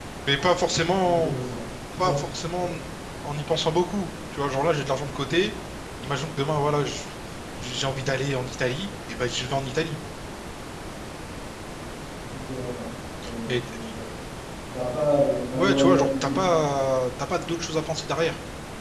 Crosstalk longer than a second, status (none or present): present